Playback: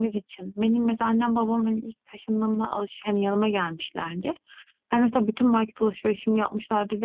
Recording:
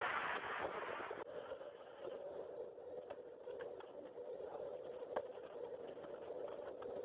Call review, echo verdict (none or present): none